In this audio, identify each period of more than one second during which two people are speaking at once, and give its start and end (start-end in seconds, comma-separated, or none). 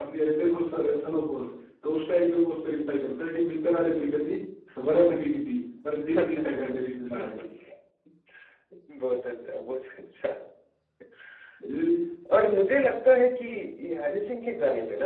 none